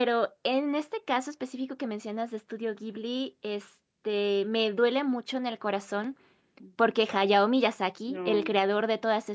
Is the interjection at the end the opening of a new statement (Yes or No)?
No